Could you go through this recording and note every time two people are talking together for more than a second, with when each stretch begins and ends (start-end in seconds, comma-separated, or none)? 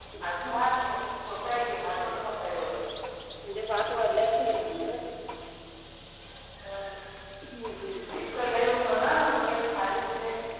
none